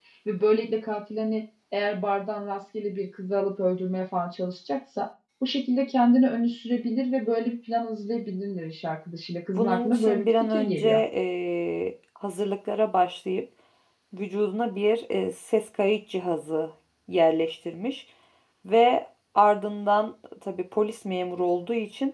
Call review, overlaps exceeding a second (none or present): present